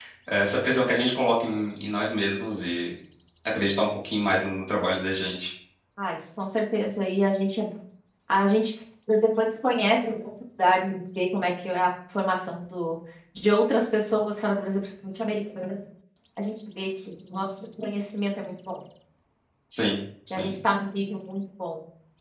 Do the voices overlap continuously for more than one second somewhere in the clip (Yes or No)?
No